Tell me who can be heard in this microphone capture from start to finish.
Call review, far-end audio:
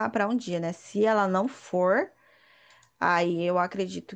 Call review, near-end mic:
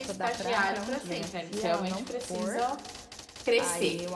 both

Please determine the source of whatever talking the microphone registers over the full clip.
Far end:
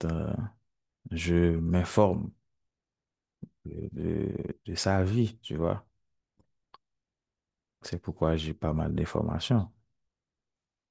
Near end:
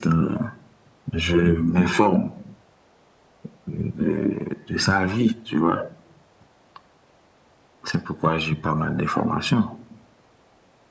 echo only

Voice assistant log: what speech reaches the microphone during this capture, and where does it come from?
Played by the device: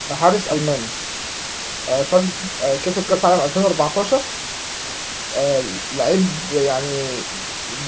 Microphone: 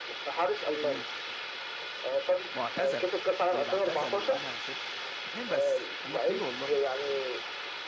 both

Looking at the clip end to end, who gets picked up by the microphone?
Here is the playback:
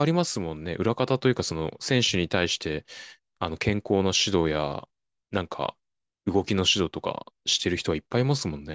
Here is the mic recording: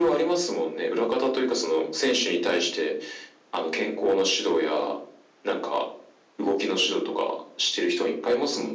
echo only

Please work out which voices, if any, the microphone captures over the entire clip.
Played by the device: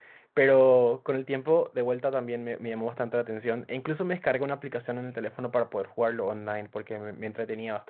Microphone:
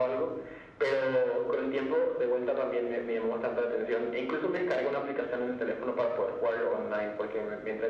echo only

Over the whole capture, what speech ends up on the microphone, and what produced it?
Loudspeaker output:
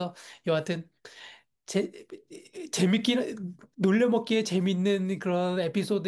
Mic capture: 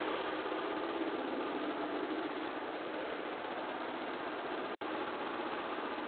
neither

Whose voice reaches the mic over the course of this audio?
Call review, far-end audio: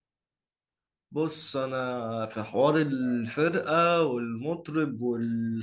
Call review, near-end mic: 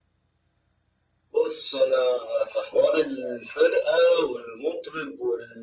echo only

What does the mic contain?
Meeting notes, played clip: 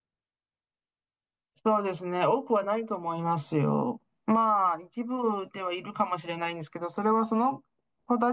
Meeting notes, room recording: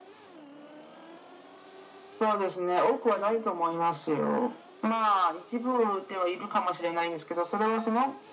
echo only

